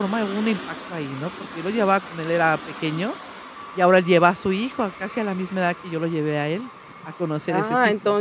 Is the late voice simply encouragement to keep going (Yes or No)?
No